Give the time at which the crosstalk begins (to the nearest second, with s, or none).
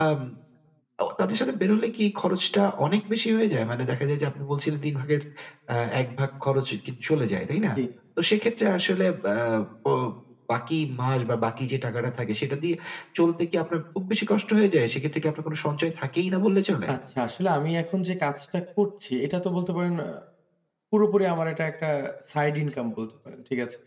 none